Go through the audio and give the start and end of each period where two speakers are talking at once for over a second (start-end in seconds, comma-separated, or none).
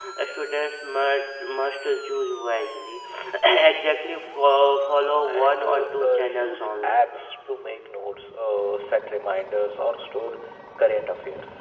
5.2-7.0